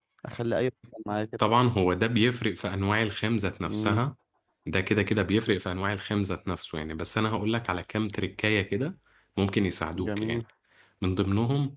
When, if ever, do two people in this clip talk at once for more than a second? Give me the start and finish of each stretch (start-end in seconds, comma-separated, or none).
none